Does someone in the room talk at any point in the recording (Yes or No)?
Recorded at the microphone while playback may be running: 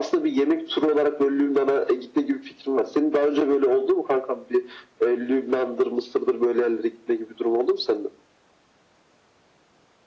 No